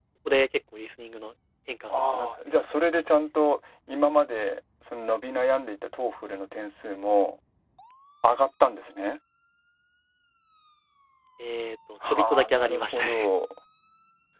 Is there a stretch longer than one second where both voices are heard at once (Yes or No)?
Yes